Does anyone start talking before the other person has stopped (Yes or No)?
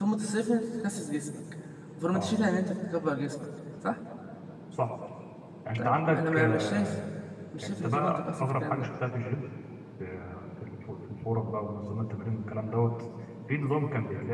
Yes